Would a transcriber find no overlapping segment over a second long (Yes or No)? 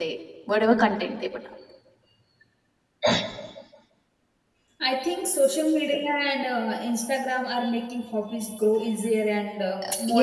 Yes